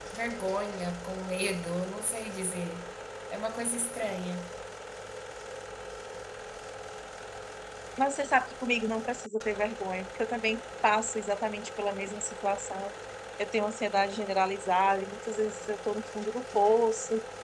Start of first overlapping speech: none

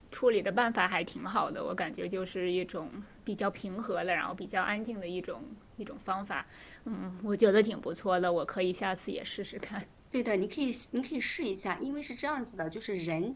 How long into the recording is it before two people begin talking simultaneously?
none

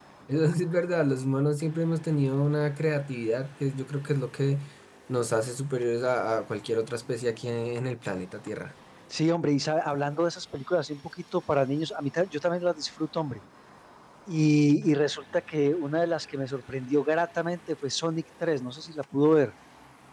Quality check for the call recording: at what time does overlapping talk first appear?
none

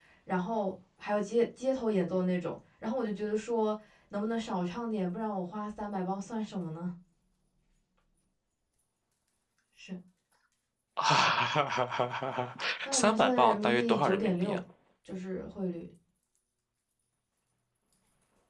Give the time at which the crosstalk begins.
13 s

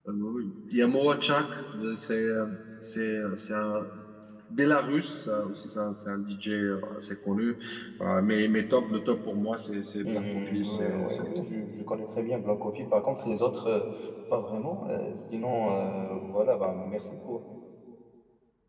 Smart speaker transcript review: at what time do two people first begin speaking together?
10 s

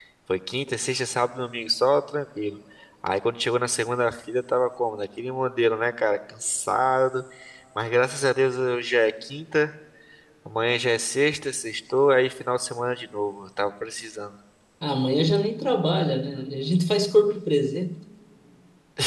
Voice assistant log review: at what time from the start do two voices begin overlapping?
none

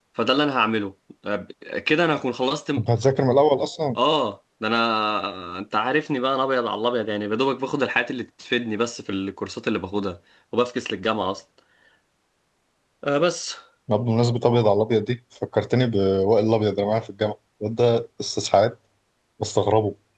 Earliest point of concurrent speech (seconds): none

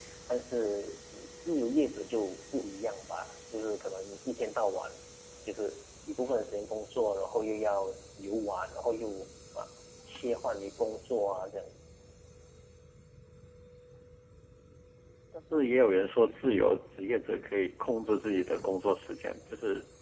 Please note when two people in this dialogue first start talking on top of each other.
none

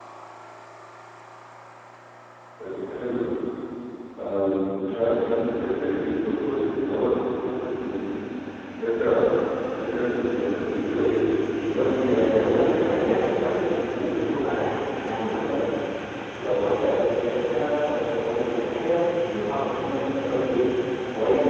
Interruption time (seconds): 12 s

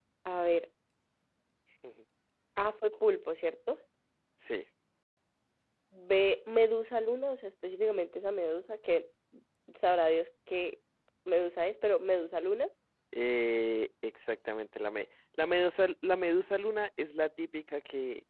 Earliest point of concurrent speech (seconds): none

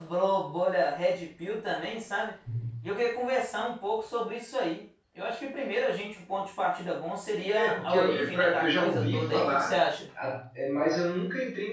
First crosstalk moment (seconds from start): 8 s

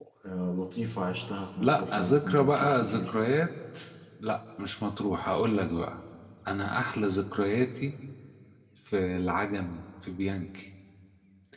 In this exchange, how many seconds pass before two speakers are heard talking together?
2 s

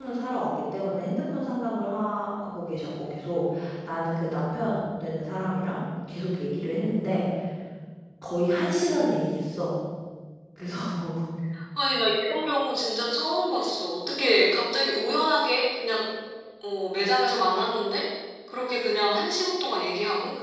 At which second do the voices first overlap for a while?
none

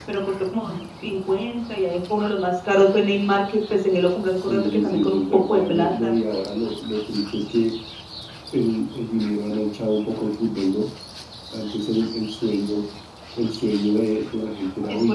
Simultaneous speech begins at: 4 s

